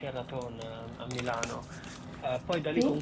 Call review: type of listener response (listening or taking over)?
listening